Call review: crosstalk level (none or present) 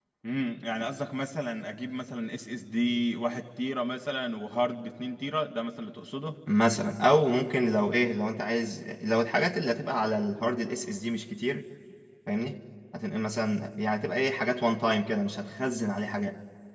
none